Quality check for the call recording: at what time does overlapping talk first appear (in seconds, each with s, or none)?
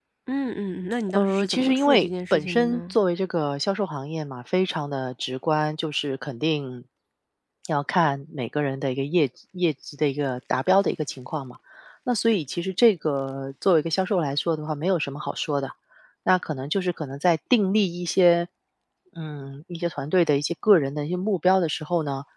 1.1 s